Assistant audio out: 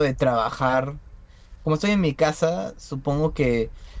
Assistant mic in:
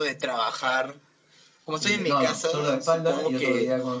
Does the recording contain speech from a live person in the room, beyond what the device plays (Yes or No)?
Yes